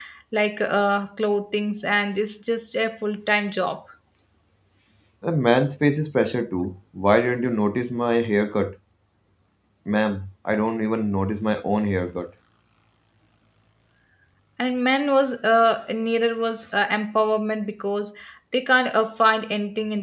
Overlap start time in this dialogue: none

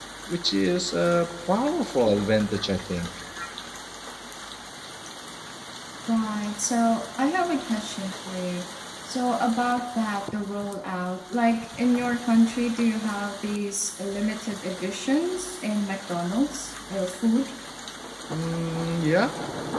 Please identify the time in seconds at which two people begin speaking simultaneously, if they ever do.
none

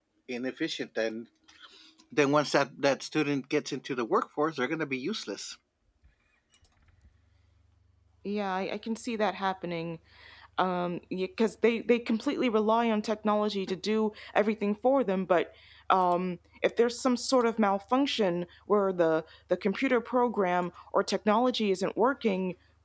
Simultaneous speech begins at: none

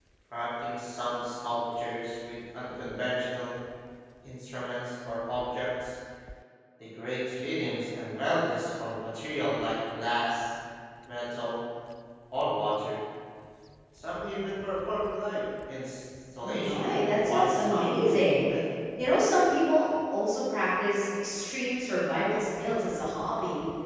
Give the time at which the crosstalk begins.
16 s

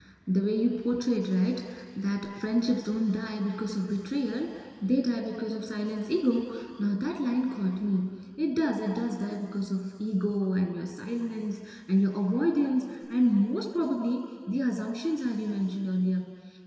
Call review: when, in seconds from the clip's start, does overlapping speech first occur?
none

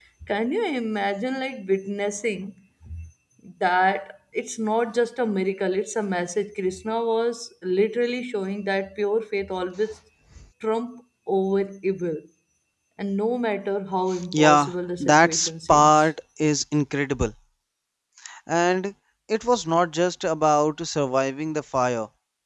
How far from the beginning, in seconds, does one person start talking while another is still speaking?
14 s

